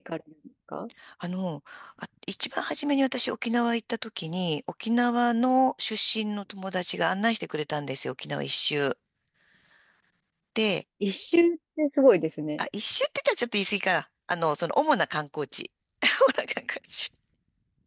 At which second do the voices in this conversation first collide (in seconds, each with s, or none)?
none